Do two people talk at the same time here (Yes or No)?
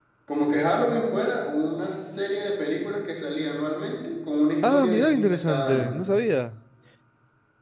Yes